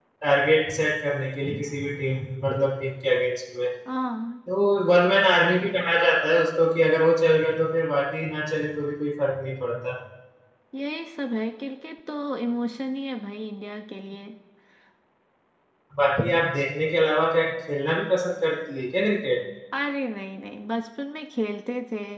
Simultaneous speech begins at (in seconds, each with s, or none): none